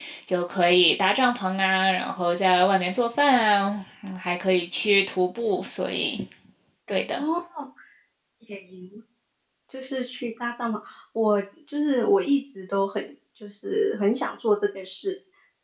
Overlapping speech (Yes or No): No